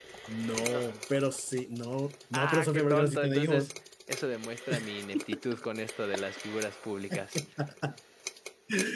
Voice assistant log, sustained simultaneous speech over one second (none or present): present